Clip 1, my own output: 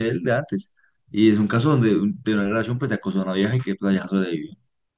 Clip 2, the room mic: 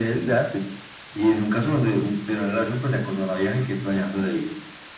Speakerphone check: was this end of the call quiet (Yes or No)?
Yes